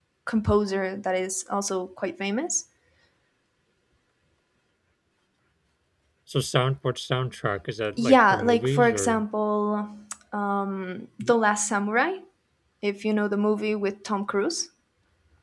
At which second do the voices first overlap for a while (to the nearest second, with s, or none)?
8 s